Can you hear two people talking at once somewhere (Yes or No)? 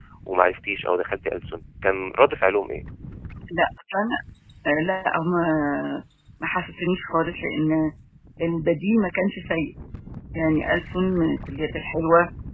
No